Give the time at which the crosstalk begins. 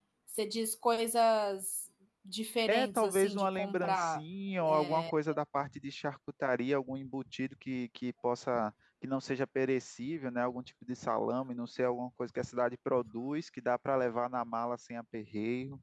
2.7 s

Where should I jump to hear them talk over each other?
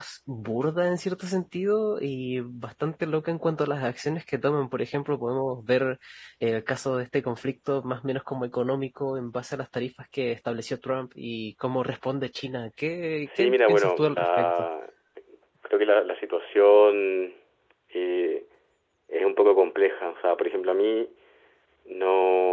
13.3 s

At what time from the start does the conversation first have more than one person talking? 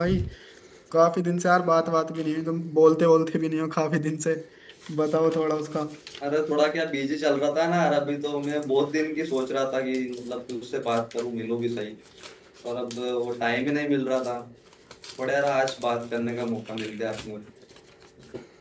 none

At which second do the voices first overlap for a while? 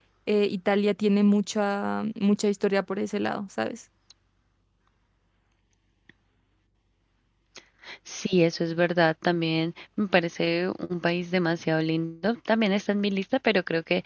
none

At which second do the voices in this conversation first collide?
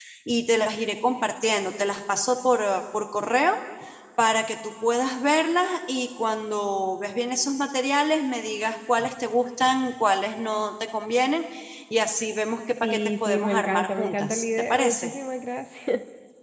12.8 s

